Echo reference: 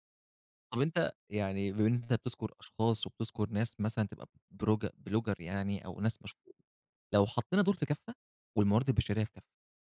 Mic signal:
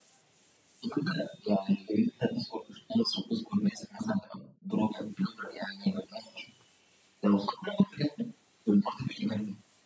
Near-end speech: none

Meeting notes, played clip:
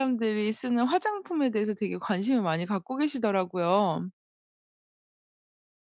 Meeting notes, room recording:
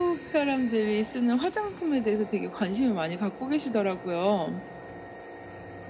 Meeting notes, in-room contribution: none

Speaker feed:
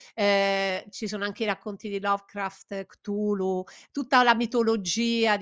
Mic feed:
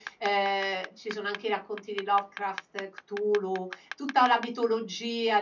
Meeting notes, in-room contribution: none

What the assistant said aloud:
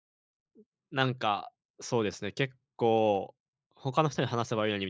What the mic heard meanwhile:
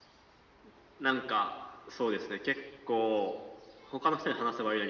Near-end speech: none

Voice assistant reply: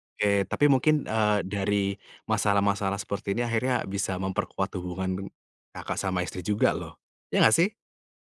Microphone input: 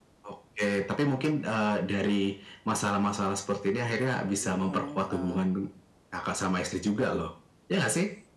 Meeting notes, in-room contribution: present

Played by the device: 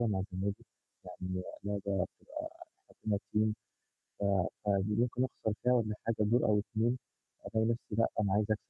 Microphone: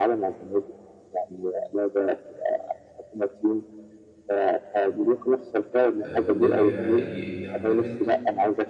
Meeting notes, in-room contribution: present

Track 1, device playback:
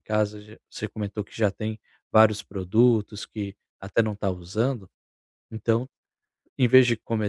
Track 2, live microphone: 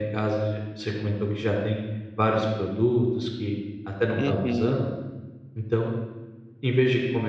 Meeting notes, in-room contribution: present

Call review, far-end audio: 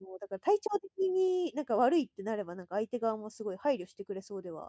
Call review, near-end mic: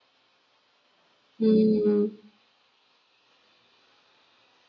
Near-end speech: present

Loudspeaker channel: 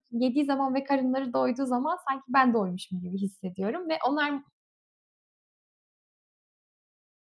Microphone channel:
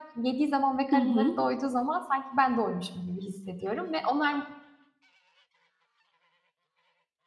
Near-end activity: present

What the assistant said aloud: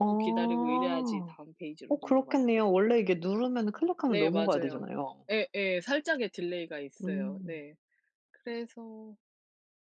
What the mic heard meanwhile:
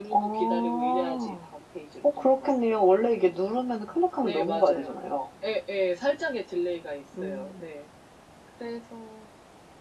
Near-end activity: none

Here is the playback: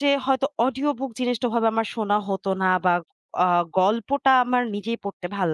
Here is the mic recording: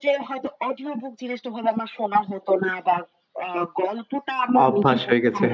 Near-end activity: present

